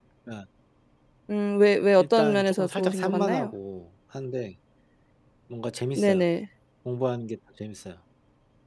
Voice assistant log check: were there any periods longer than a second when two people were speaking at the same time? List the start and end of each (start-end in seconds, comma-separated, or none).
2.0-3.5